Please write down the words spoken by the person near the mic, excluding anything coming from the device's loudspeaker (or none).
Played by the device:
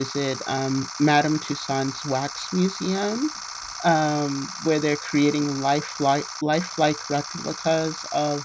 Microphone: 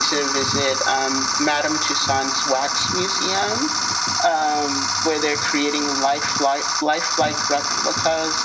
none